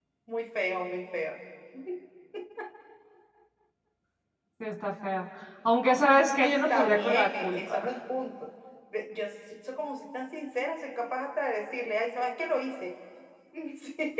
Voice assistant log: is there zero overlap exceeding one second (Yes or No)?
No